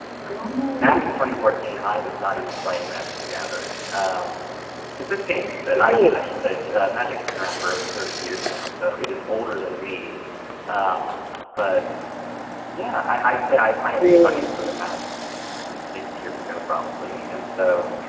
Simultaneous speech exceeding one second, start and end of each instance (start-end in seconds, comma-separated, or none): none